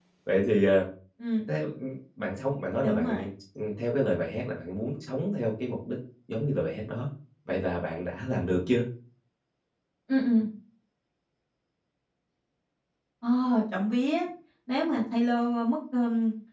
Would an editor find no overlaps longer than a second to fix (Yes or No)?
Yes